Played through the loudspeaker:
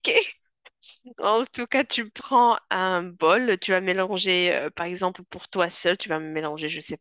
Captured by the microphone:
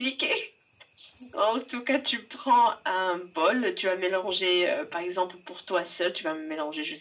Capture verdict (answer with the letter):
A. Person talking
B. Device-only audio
B